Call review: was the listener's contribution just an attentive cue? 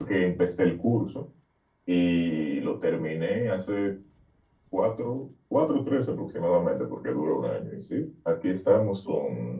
Yes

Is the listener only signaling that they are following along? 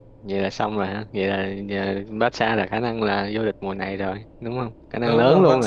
No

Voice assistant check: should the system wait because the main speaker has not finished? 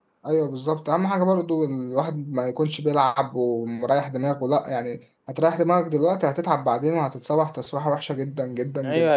No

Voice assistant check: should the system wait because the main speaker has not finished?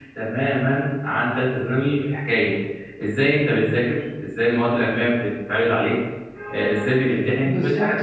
No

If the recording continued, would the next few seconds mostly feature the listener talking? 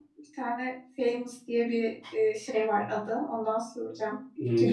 Yes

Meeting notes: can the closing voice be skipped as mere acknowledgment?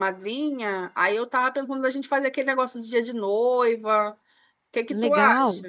No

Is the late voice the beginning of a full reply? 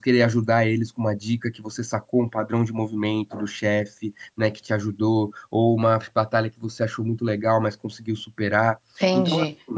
Yes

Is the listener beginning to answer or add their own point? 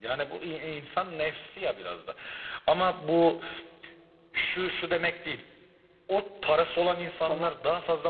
No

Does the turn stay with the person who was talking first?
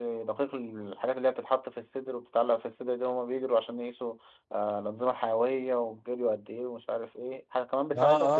No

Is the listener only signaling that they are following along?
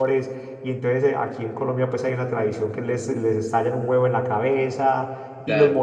Yes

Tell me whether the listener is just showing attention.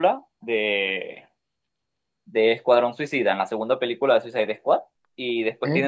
Yes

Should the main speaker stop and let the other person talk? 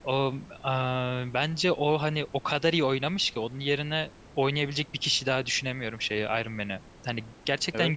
No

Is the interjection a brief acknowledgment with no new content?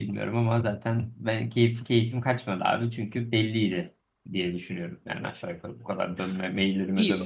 No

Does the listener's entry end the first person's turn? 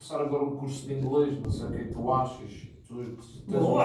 Yes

